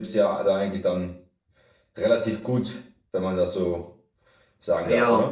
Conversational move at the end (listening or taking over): taking over